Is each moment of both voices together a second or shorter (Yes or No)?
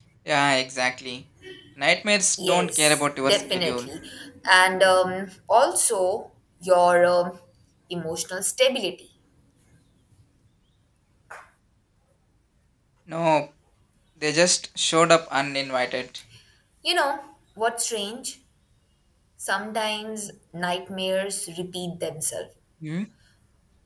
No